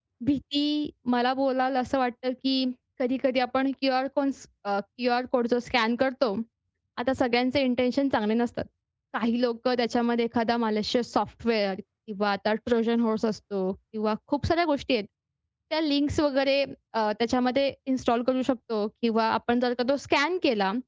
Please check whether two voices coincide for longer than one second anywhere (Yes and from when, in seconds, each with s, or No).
No